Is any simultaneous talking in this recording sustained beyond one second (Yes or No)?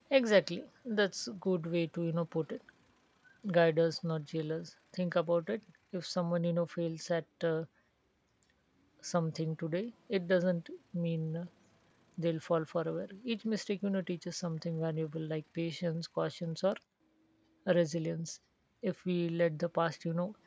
No